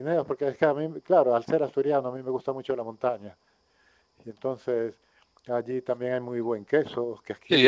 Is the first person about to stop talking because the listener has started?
Yes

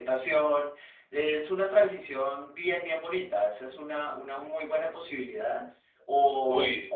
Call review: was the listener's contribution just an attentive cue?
Yes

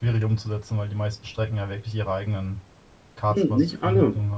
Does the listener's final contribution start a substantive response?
Yes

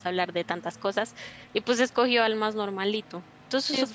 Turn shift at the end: Yes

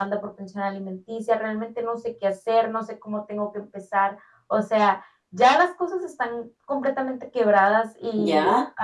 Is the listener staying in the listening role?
No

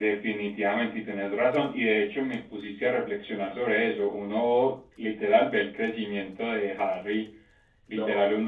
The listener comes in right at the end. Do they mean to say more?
No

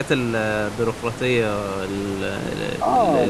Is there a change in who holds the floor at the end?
Yes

